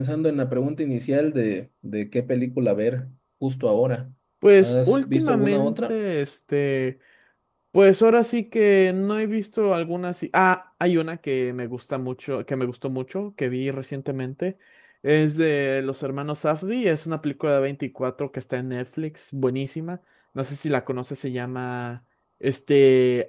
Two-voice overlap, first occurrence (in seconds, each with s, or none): 4.6 s